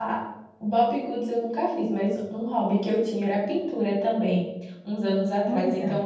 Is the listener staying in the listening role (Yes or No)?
Yes